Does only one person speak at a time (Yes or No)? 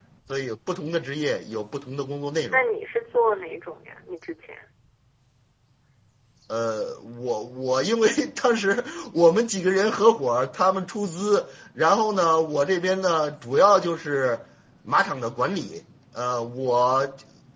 Yes